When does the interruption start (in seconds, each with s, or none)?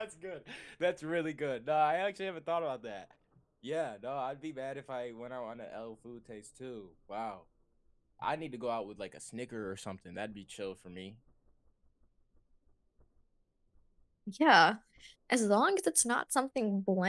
none